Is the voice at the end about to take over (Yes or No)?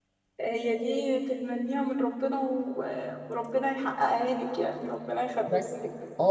Yes